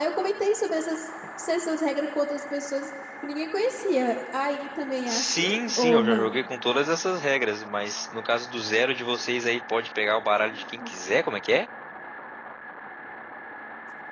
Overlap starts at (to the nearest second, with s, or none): 5 s